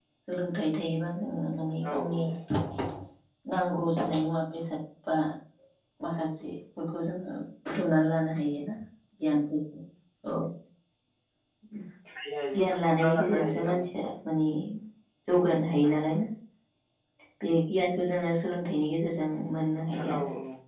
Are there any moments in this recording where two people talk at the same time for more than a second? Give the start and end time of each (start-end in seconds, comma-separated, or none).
12.6-13.8